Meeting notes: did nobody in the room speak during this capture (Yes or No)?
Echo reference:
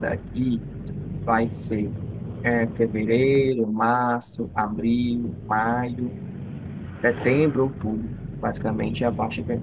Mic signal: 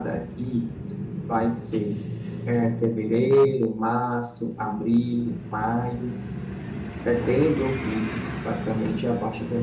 Yes